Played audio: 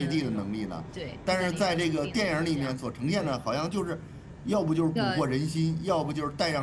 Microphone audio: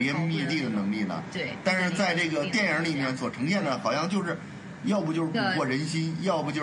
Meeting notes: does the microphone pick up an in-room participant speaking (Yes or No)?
No